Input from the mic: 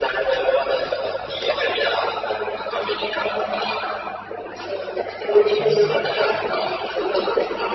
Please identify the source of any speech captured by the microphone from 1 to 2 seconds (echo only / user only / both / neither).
echo only